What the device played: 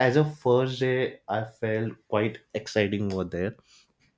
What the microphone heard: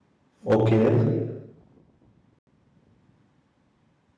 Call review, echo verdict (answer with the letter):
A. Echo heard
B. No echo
B